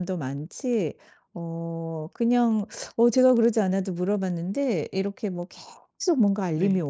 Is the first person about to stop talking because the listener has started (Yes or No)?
No